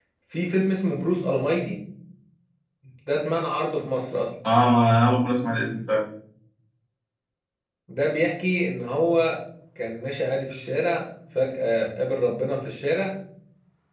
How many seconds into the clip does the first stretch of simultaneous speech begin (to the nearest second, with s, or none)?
none